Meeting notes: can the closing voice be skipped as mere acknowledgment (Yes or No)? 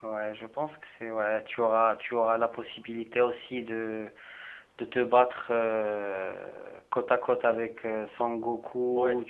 No